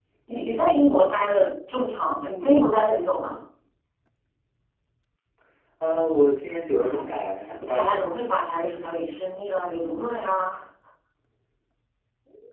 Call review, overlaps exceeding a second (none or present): none